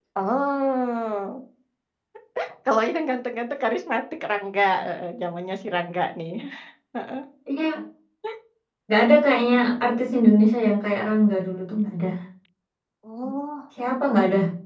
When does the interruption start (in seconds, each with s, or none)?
none